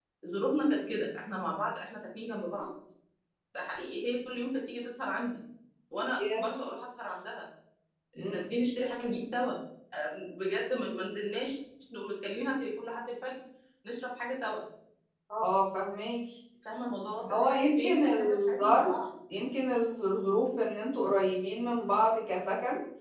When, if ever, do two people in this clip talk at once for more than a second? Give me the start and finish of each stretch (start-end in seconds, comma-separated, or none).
17.3-18.9